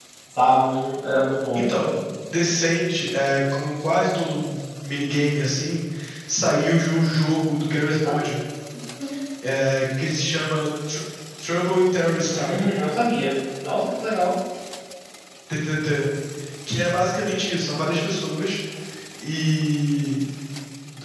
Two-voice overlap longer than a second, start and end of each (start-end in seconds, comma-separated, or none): none